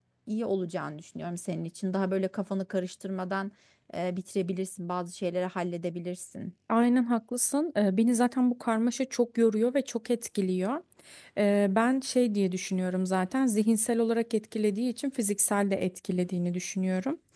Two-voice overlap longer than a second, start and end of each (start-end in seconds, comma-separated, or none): none